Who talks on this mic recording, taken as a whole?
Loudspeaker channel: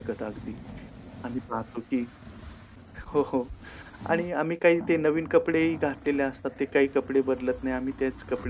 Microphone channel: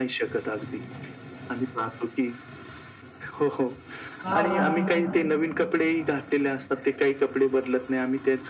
both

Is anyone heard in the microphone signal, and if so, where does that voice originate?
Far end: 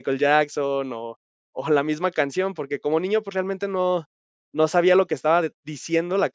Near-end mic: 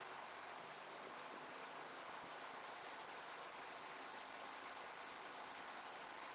neither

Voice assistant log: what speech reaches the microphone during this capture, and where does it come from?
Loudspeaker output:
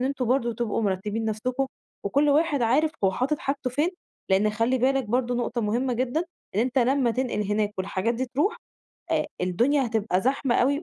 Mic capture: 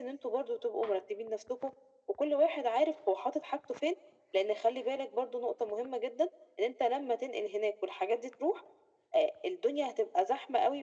echo only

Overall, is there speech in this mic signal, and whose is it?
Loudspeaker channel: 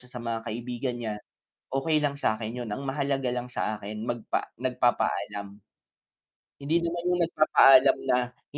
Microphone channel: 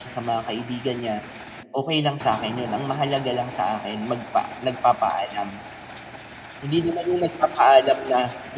echo only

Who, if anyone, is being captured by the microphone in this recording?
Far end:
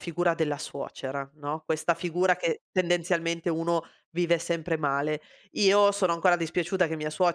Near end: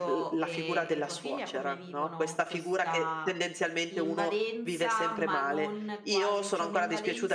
both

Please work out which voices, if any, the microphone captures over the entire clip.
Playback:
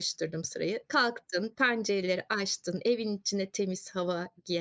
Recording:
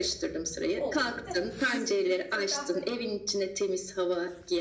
both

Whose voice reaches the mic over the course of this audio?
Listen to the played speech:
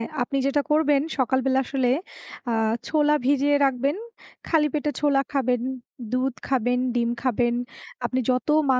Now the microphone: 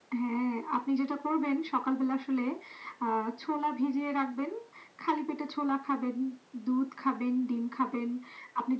echo only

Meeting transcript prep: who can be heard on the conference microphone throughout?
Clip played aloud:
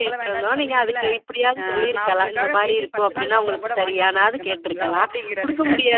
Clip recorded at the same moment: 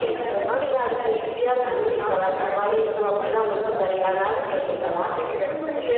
echo only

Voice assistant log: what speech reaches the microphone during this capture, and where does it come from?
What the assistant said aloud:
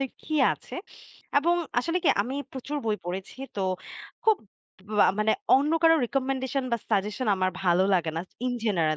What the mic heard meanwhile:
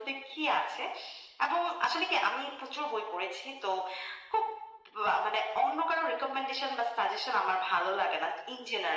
echo only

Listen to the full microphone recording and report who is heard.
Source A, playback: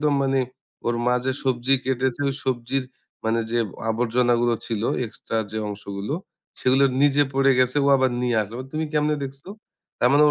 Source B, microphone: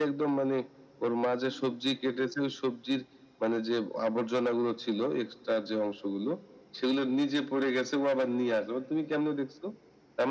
echo only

